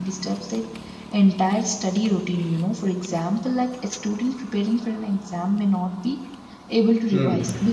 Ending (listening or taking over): listening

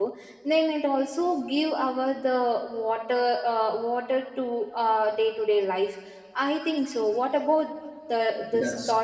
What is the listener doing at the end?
taking over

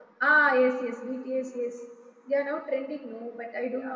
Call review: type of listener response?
taking over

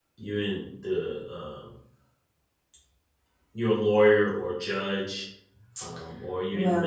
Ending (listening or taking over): listening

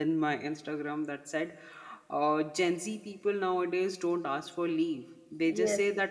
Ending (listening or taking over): listening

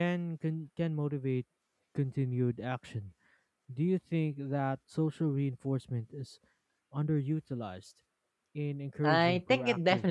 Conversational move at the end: taking over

